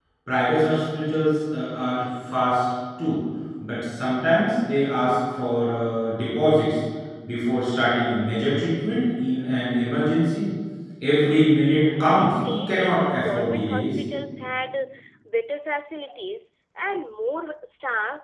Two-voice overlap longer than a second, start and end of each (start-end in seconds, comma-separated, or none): 12.0-14.0